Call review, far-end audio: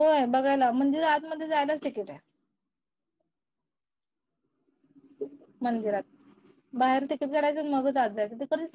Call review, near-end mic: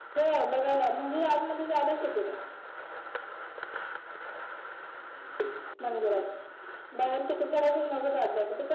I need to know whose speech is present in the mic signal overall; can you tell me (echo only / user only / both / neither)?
echo only